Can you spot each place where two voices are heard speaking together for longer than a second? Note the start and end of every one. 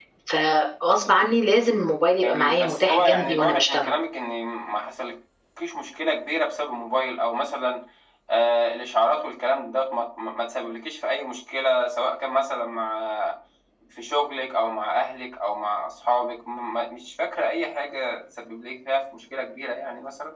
2.2-3.9

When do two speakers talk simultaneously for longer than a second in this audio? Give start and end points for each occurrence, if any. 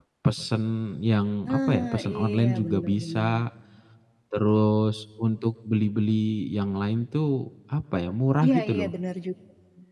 1.6-3.3

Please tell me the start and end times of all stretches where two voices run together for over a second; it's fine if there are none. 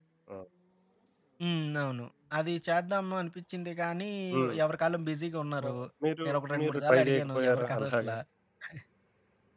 6.2-8.1

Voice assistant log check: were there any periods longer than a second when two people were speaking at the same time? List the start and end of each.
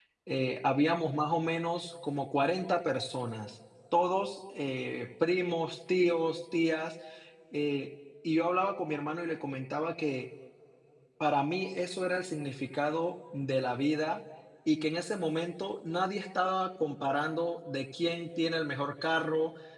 none

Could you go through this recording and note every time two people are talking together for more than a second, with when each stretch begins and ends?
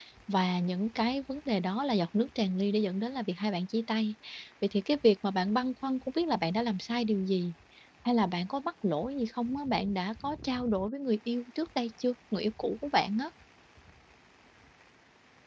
none

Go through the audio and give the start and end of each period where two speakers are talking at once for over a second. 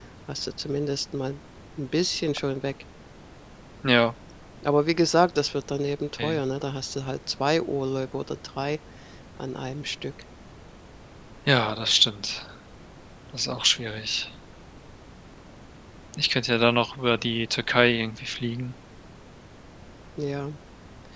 none

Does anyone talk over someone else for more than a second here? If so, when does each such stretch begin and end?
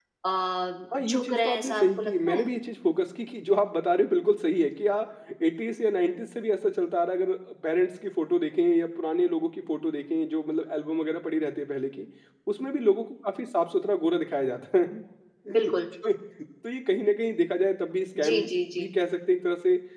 1.1-2.4

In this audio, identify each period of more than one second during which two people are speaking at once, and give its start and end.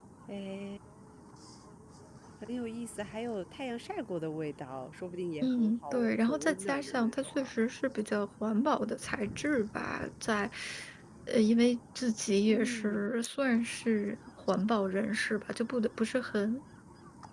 5.4-7.5

